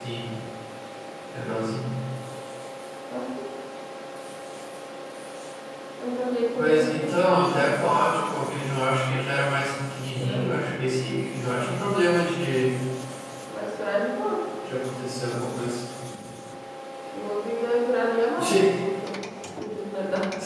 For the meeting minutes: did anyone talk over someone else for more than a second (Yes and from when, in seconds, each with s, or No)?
Yes, from 6.6 s